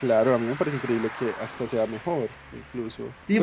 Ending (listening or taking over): taking over